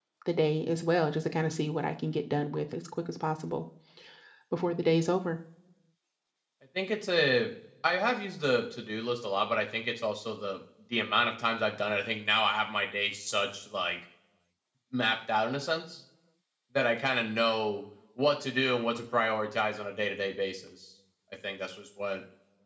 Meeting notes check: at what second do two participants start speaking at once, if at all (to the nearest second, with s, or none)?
none